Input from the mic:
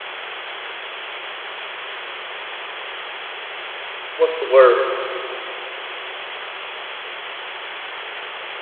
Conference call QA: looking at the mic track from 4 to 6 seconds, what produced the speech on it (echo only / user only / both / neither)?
user only